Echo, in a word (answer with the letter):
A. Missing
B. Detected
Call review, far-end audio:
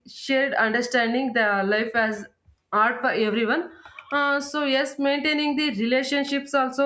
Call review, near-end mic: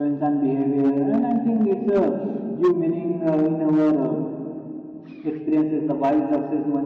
A